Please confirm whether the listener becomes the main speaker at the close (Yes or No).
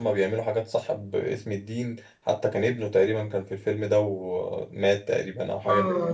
Yes